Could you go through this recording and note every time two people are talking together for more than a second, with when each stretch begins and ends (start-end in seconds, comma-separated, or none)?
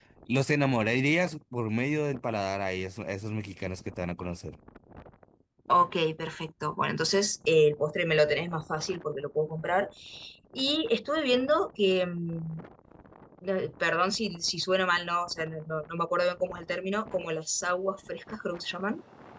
none